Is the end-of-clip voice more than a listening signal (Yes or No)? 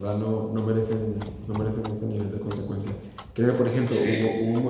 No